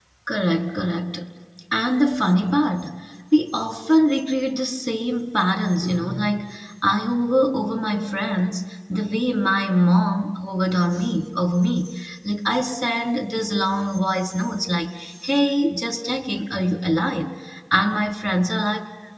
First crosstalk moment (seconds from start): none

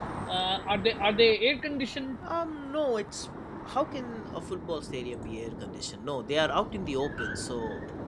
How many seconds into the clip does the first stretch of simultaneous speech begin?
none

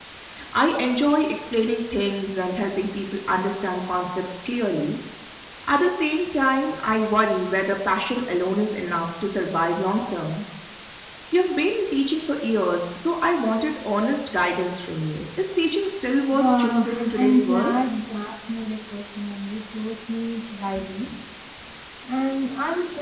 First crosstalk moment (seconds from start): 16.3 s

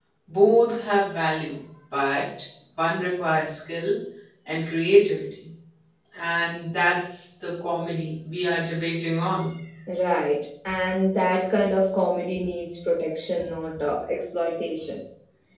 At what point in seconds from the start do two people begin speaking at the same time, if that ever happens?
none

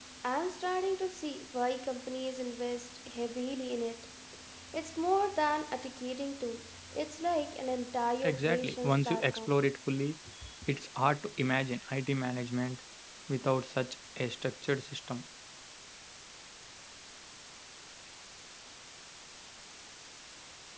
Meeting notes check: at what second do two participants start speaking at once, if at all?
8.2 s

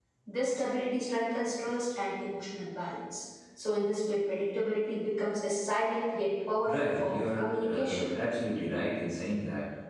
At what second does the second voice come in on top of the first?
6.6 s

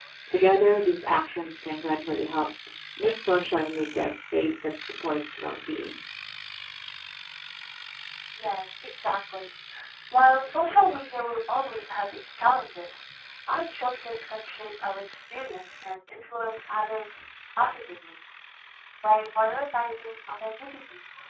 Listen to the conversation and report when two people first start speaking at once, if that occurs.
none

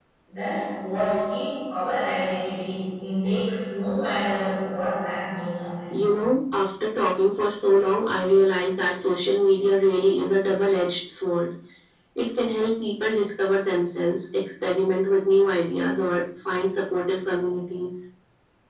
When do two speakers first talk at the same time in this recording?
none

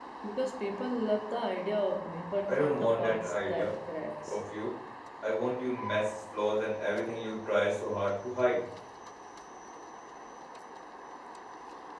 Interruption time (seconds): 2.5 s

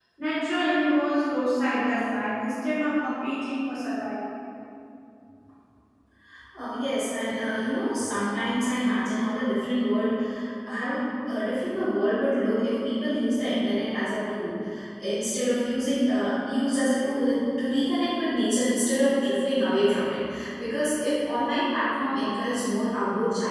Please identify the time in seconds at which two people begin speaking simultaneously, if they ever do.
none

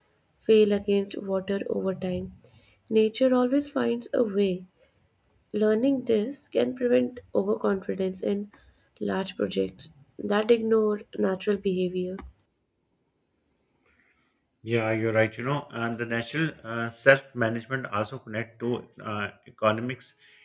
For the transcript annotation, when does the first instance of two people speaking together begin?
none

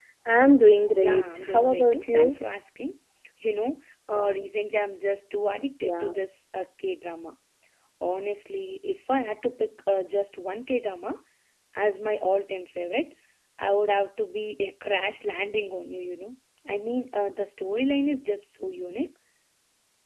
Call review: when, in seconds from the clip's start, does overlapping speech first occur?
1.0 s

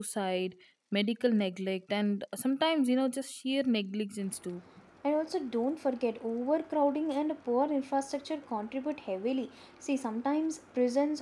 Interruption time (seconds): none

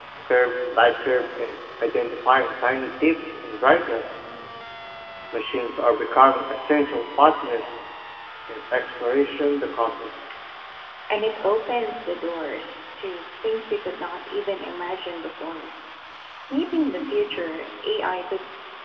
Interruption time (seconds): none

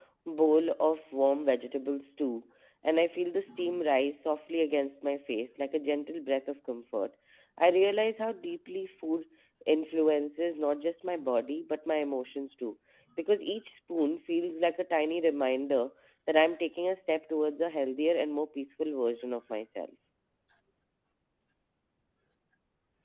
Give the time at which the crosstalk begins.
none

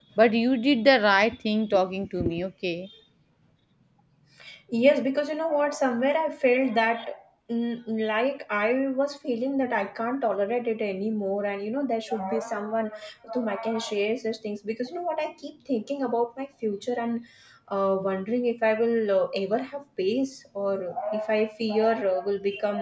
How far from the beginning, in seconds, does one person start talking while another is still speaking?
none

